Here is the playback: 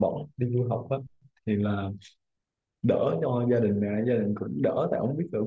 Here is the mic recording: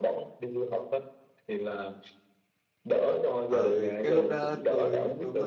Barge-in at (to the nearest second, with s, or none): 3 s